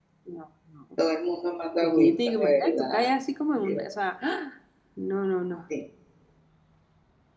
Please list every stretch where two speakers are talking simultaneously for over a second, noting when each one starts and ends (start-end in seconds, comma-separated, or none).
1.8-3.1